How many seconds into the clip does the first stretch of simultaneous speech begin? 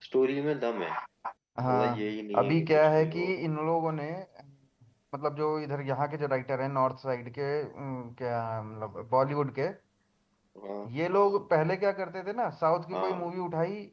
2 s

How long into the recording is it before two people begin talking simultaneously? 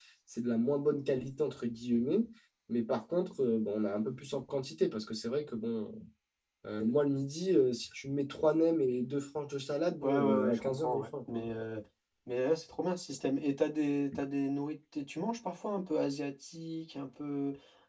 10 s

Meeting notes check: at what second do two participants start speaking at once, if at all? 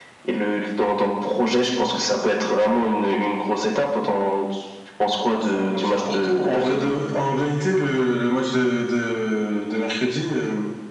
5 s

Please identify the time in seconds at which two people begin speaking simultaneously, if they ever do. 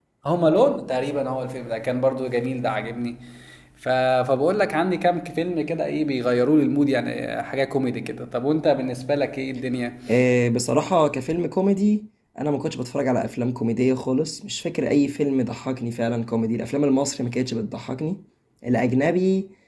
none

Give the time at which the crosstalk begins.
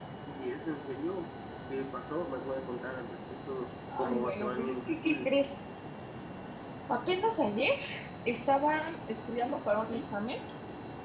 4 s

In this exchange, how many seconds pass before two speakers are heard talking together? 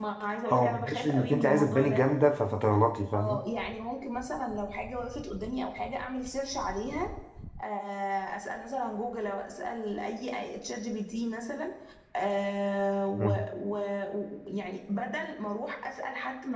1 s

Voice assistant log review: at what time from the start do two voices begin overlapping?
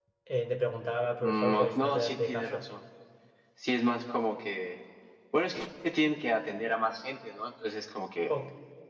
1 s

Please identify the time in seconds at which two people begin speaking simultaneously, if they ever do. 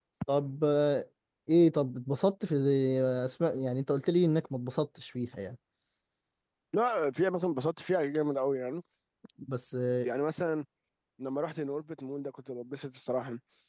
none

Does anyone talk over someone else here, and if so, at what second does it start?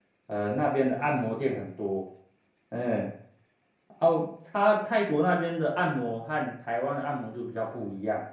none

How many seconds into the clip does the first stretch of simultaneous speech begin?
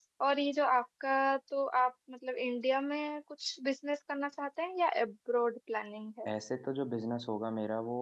none

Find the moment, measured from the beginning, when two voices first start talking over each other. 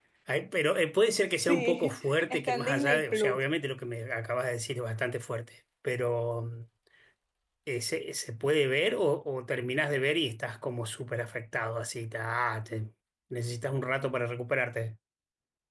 1 s

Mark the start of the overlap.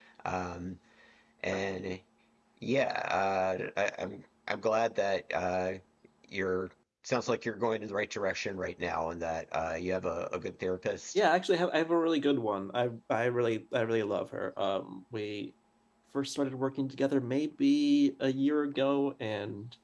none

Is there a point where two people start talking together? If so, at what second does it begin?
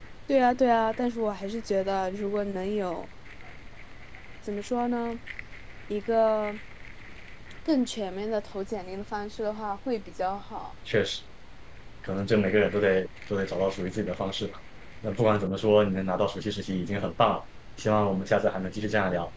none

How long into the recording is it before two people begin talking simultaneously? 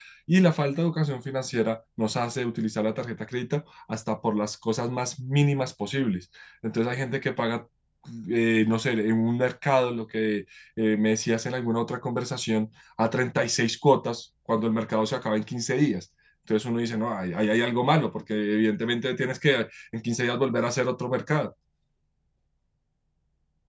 none

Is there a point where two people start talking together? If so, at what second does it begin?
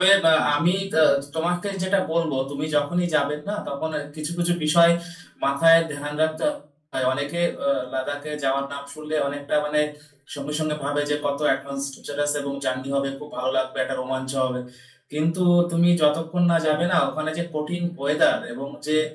none

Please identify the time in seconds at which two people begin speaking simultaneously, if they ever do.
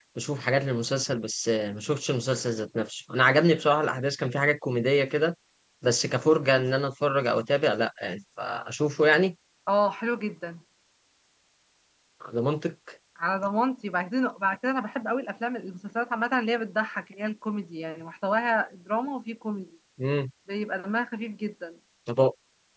none

